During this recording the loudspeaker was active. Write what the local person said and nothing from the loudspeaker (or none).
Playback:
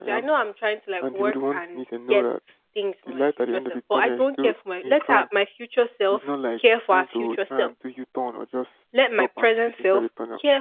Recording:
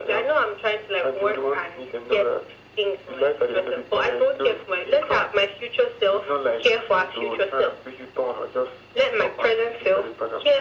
none